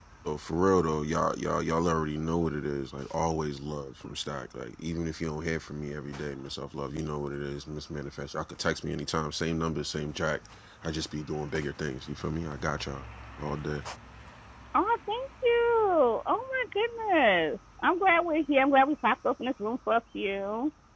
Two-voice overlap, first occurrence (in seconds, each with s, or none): none